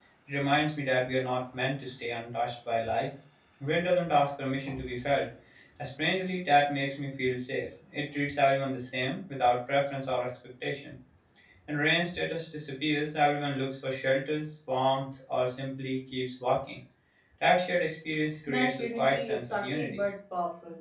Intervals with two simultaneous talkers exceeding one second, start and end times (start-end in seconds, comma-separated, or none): 18.5-20.0